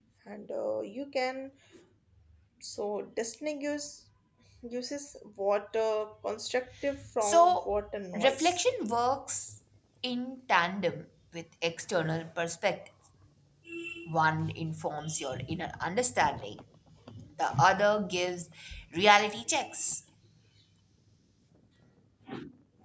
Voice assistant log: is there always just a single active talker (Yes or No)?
No